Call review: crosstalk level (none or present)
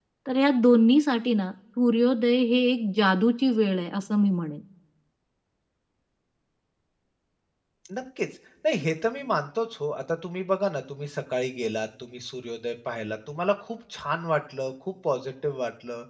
none